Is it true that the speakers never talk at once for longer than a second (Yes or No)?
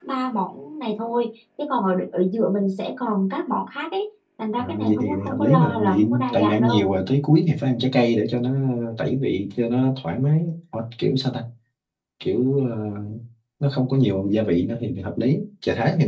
No